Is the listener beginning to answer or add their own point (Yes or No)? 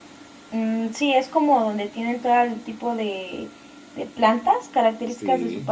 Yes